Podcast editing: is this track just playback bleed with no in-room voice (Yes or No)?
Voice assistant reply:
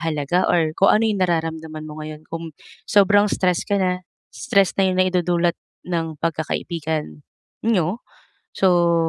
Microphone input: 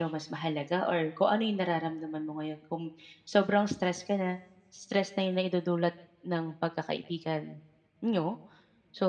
Yes